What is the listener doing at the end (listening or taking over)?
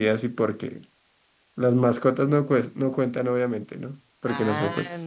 taking over